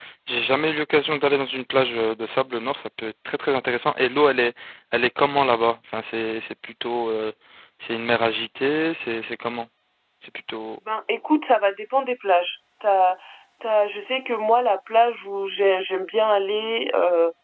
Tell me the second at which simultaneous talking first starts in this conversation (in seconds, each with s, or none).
none